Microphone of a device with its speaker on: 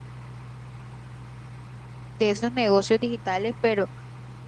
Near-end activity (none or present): present